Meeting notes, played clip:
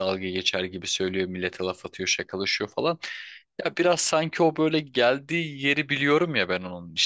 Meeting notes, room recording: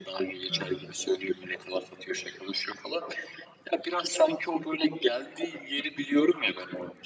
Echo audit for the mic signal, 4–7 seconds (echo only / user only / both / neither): echo only